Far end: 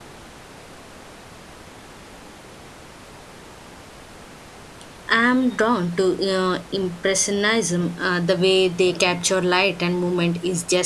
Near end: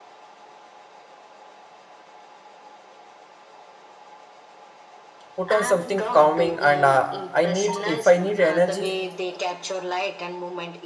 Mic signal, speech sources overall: both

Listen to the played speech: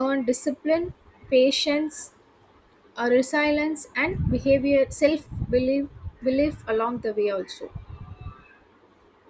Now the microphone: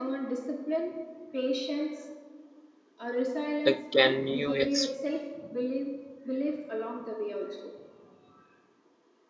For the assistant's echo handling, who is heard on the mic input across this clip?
both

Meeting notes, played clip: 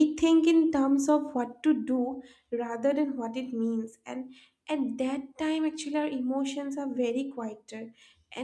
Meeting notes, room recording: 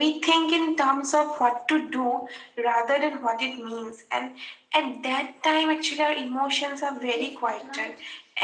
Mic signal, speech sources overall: both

